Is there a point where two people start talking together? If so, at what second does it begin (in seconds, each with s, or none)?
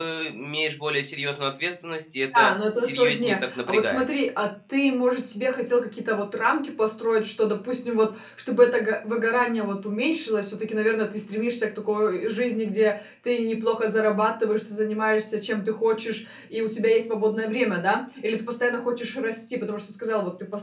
2.3 s